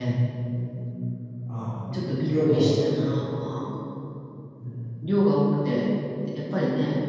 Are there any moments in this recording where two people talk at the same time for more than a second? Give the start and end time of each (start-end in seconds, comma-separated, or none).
1.9-3.1